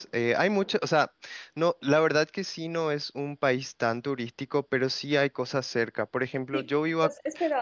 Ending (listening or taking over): taking over